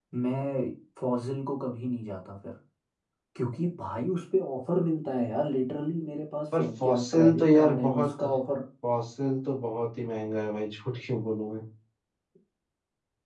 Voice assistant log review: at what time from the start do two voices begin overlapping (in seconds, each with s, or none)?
6.5 s